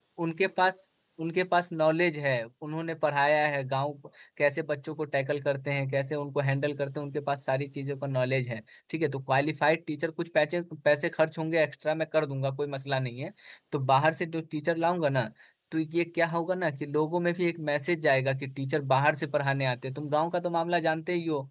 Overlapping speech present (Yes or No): No